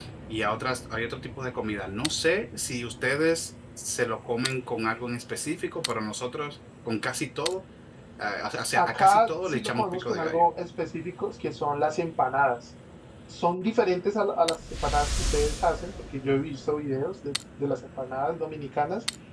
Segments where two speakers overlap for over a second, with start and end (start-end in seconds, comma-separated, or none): 8.8-10.4